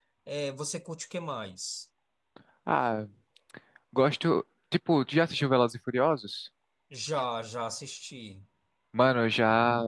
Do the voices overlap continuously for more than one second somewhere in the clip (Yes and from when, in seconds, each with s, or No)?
No